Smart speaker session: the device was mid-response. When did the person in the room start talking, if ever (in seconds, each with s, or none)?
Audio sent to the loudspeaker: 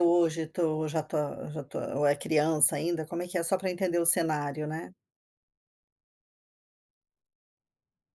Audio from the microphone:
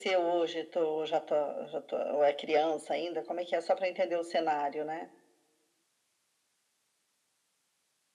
none